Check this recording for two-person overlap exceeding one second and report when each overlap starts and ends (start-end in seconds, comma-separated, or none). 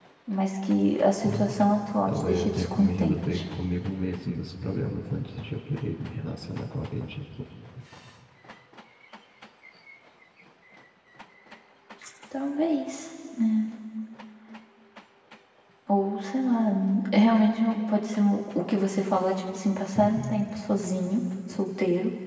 2.1-3.4